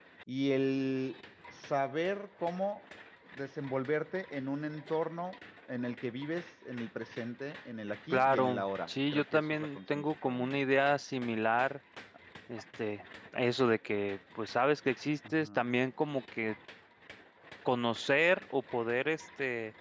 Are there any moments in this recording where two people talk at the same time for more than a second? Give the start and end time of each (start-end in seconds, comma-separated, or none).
8.1-10.5